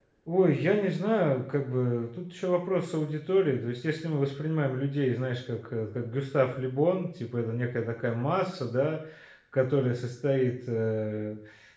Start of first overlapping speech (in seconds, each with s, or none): none